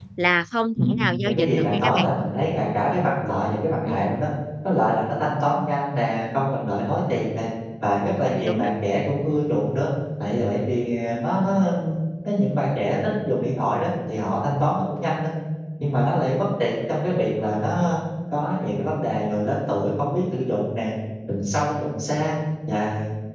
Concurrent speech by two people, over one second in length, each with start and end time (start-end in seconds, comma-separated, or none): 0.8-2.1